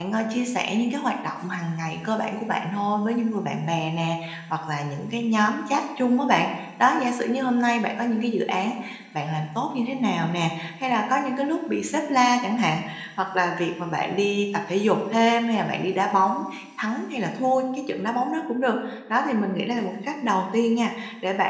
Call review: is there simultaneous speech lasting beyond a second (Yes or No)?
No